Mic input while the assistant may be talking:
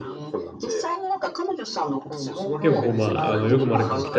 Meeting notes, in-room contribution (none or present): present